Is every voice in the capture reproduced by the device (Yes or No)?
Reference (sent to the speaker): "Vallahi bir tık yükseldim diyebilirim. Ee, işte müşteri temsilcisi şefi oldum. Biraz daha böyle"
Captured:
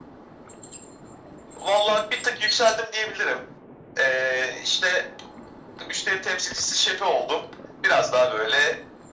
Yes